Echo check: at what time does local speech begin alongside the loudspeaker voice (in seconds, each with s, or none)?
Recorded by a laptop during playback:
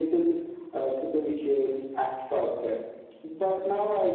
none